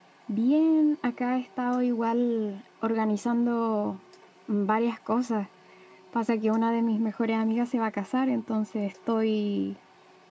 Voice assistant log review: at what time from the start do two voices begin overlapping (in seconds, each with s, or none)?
none